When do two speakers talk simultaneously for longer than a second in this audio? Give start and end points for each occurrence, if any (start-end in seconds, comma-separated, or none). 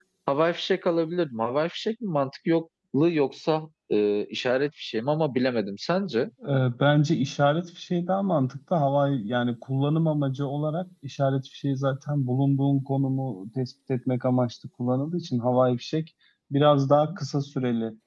none